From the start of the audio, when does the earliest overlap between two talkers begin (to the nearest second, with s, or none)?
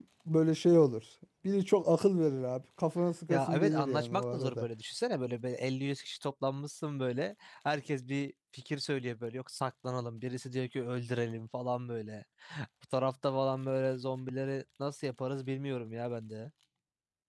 3 s